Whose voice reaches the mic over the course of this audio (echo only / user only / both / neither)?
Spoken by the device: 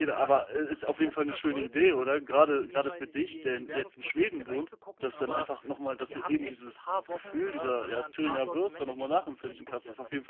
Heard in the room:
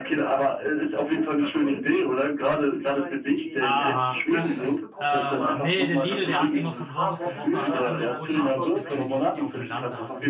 both